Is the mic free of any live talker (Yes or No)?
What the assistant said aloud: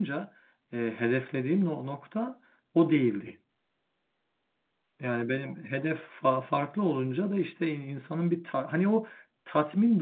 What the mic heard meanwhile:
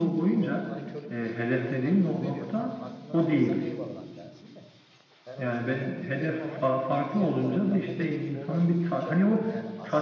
No